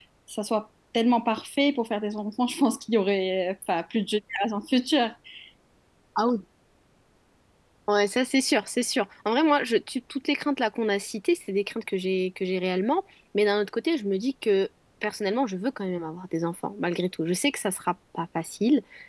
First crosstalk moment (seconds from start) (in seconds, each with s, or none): none